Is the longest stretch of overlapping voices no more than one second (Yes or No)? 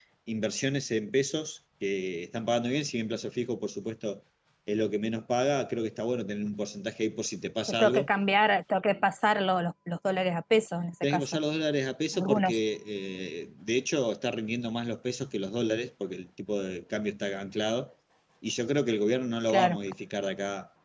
Yes